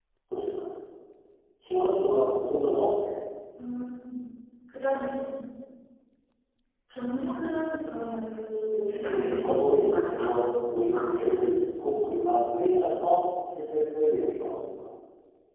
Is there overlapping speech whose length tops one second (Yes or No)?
Yes